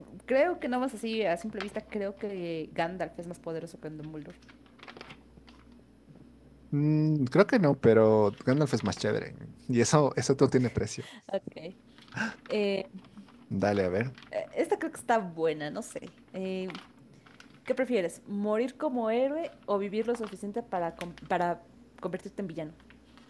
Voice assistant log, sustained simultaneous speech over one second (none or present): none